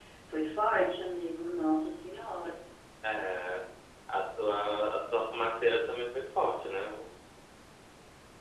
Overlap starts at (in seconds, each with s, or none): none